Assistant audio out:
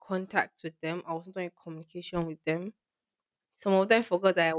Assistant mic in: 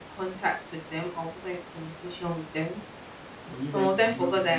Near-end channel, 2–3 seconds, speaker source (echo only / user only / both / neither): echo only